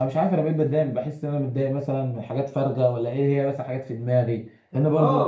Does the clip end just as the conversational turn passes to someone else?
Yes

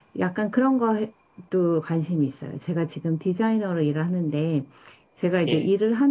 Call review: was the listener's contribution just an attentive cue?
Yes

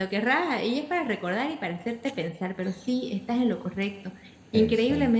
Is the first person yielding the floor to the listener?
No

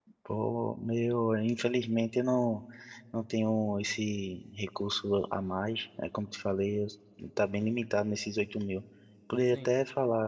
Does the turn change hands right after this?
No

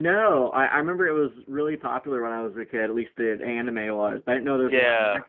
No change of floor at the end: No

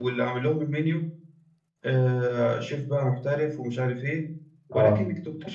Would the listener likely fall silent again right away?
Yes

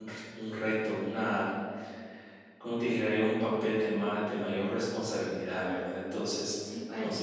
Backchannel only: Yes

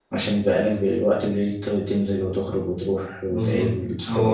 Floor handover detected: Yes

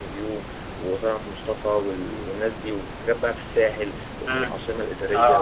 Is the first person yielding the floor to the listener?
Yes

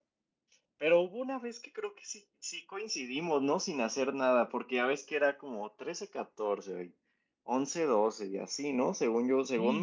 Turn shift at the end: Yes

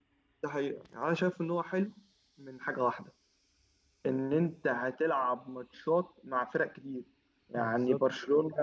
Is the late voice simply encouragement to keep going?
Yes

